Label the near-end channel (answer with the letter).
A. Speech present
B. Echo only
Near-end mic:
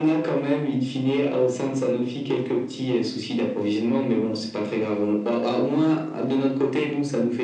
B